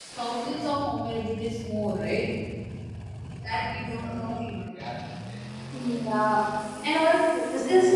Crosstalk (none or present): none